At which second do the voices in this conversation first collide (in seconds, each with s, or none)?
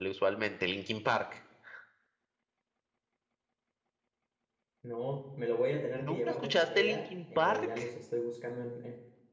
6.0 s